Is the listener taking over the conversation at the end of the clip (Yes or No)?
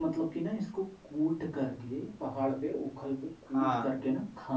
No